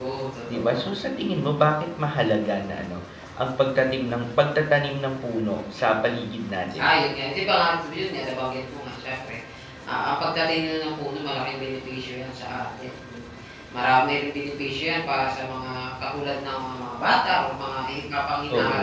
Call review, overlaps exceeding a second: none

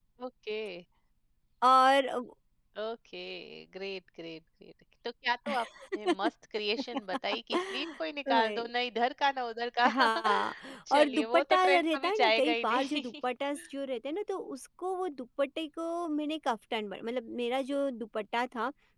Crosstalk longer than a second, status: present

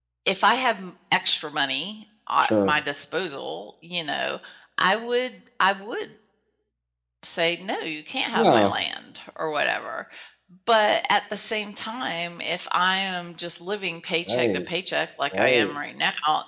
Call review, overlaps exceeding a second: none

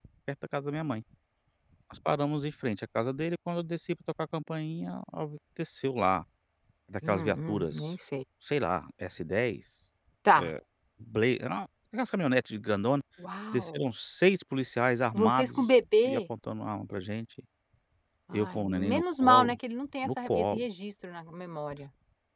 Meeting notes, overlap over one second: present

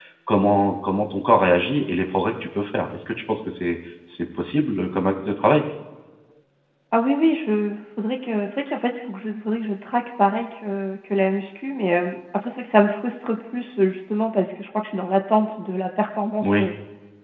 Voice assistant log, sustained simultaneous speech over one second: none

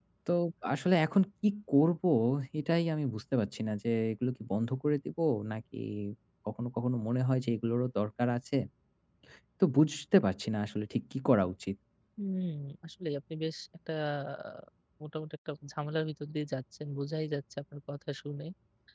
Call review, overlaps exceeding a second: none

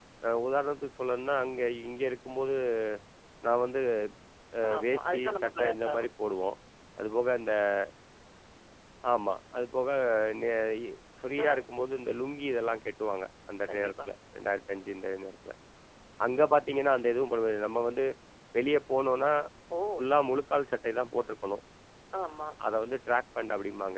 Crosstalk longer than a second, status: present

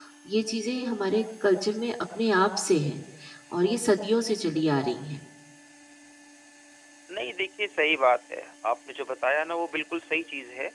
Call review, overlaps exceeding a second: none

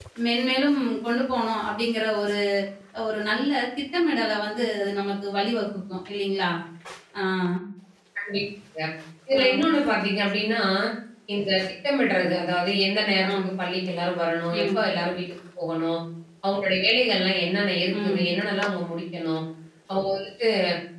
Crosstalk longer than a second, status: none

